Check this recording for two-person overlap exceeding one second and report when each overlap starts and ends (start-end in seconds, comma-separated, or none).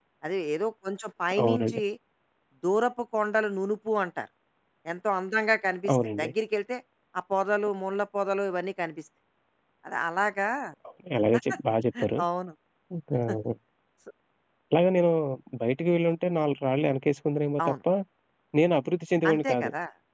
none